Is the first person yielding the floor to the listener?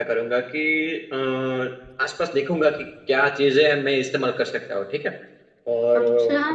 No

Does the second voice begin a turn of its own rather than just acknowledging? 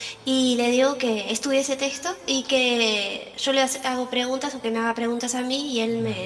No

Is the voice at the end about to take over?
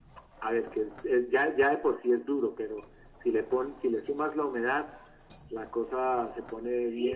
Yes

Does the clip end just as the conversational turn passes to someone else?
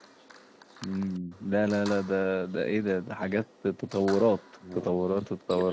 Yes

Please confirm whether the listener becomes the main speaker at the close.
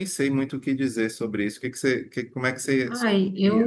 Yes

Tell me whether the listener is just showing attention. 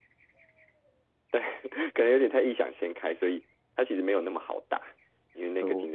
Yes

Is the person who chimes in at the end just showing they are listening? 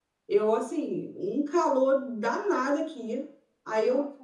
Yes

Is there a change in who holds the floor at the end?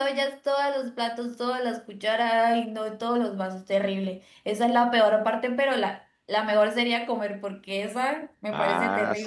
Yes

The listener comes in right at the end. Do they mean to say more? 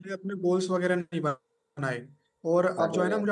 No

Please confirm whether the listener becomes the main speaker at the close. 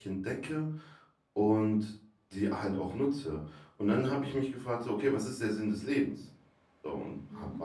No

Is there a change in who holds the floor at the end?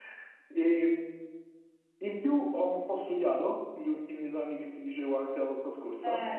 Yes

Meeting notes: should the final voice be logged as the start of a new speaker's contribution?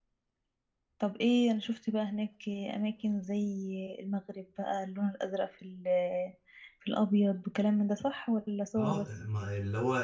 Yes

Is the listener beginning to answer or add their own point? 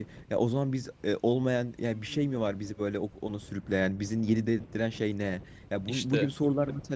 No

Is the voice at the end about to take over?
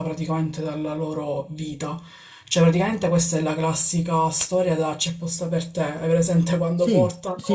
No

